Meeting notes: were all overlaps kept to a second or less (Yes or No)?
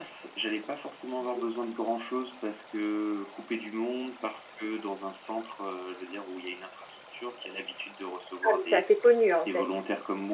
Yes